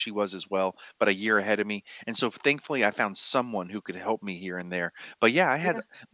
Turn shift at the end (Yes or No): No